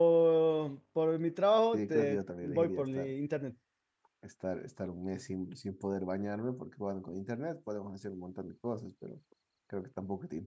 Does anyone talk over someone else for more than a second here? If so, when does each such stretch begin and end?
1.7-3.1

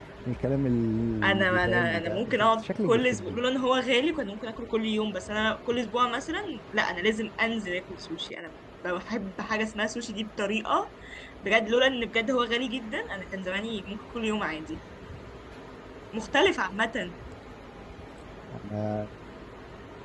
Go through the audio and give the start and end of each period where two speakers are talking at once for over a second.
1.2-3.4

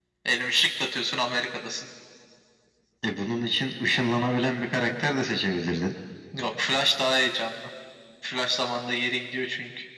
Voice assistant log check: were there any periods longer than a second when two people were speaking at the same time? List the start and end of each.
none

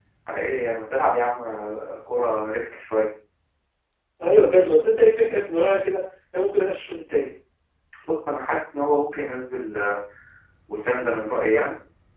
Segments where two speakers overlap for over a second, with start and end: none

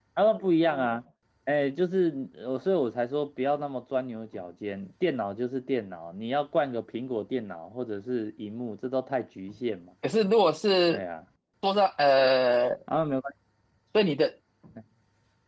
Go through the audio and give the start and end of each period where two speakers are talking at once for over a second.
none

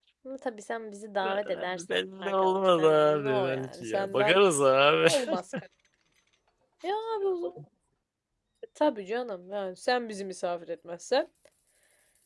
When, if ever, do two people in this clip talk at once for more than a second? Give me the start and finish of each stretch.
1.2-4.4

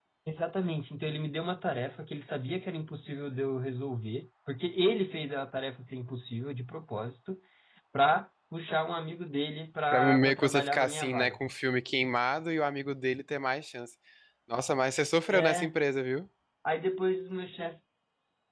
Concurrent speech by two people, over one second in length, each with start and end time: 9.9-11.4

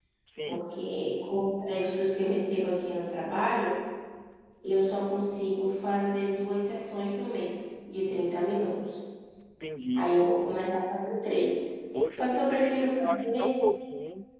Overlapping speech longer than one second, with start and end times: 12.1-13.5

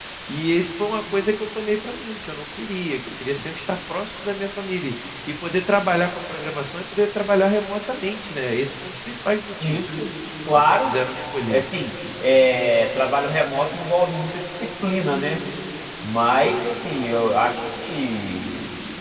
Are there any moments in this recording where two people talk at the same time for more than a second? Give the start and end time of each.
none

